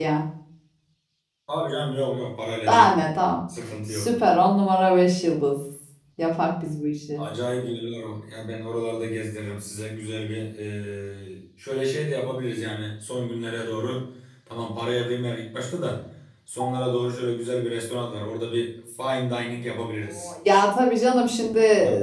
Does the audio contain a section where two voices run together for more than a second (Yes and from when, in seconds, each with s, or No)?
No